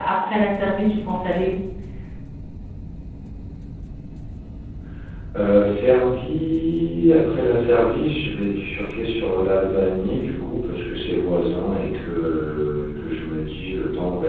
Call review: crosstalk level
none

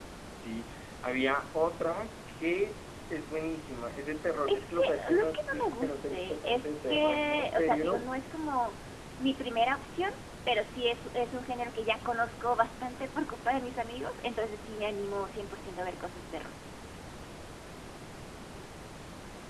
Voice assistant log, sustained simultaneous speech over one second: present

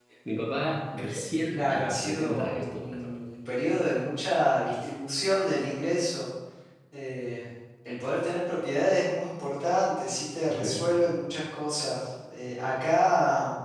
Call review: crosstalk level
present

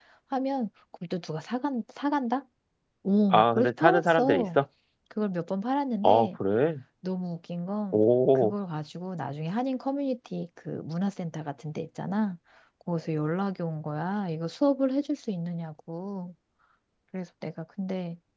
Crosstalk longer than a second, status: present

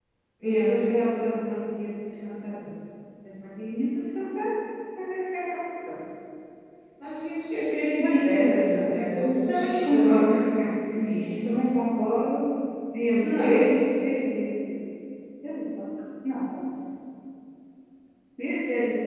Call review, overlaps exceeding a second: present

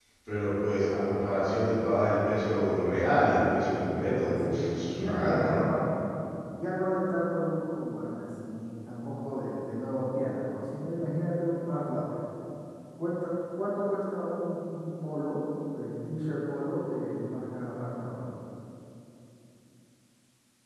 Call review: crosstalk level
present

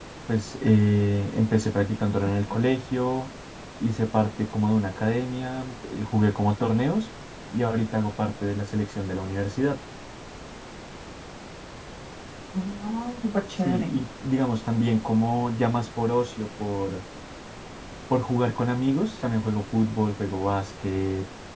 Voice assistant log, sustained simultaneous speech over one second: none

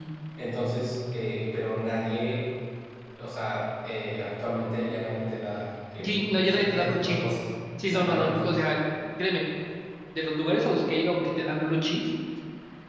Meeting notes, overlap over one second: present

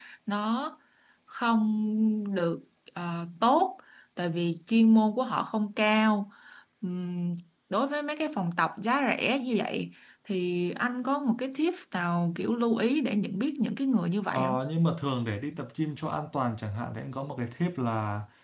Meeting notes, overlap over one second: none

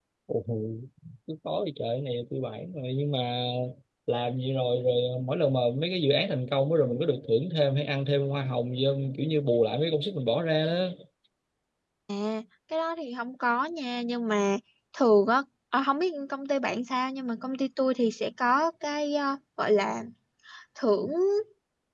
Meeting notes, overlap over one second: none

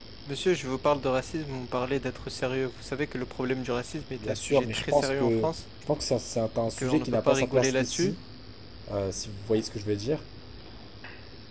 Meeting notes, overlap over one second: present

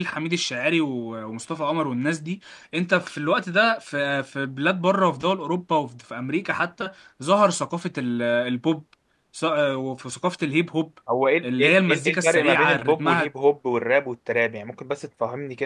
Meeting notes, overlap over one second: present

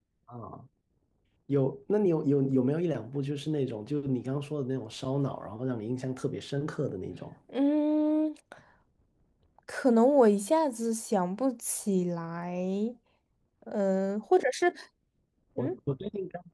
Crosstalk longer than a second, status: none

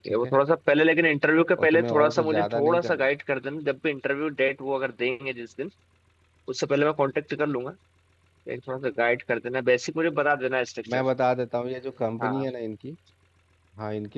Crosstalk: present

